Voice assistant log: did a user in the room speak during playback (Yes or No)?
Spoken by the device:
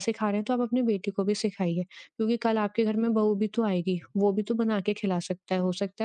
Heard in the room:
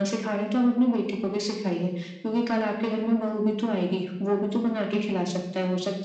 No